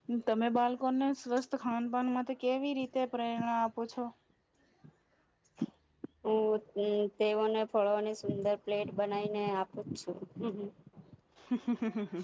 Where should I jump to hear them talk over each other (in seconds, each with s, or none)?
none